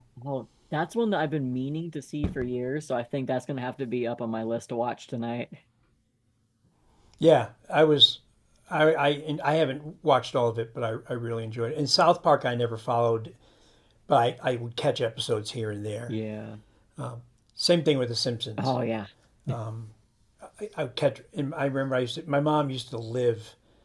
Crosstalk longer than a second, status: none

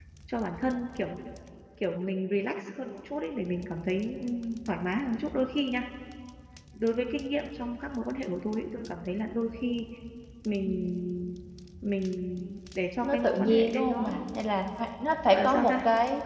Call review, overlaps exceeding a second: present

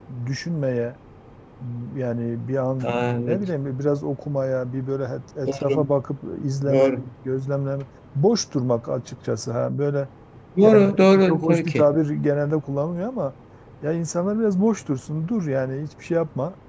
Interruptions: present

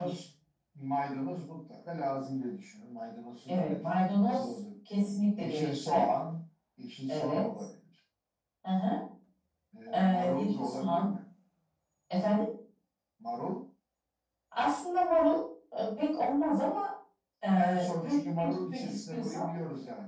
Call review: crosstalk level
present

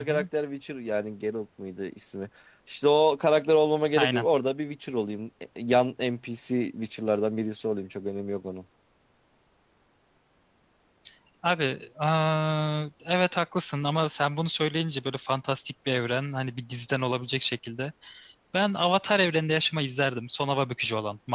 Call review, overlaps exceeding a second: none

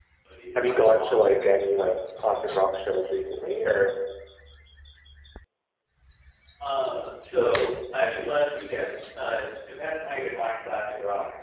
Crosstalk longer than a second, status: present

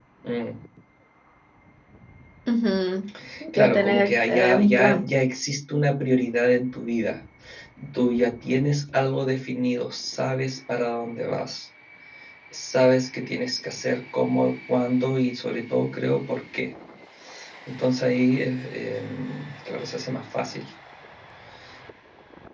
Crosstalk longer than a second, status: present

